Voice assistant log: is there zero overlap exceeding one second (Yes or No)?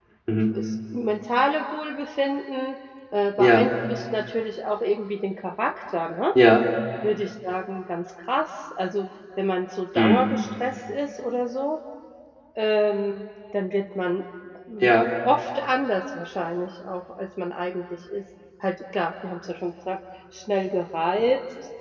Yes